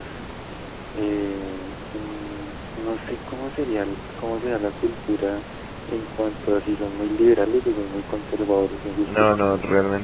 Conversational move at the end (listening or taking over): taking over